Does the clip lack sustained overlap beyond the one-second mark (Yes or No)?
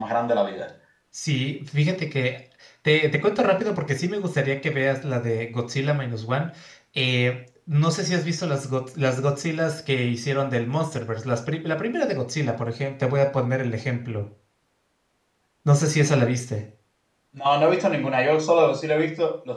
Yes